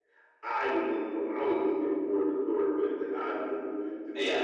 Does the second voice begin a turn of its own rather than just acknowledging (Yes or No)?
No